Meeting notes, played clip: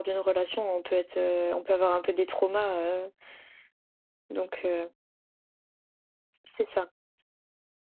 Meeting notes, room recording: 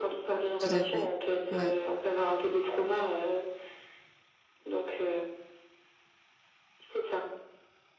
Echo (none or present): present